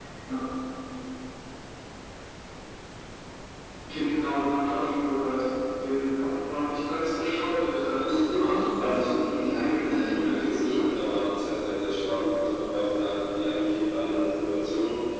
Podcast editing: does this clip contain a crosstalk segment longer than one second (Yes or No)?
Yes